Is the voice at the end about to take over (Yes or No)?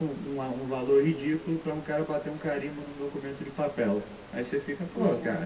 No